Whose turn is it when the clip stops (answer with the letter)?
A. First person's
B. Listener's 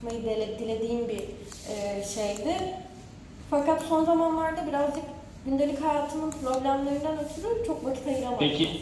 B